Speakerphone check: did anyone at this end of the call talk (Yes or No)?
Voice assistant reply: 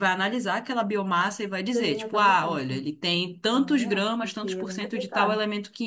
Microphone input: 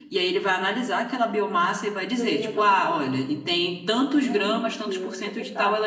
No